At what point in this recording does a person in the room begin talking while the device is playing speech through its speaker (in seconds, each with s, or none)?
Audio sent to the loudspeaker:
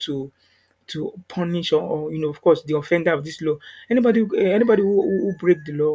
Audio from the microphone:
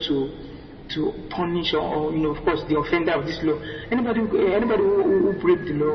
none